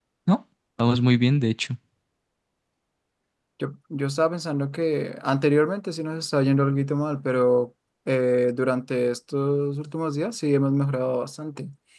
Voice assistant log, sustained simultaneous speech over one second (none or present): none